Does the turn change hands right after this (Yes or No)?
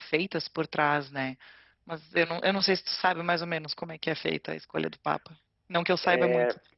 Yes